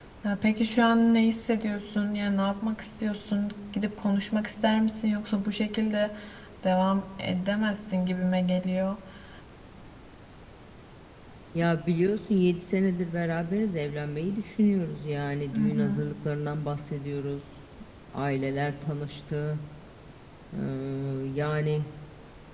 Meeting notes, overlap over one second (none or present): none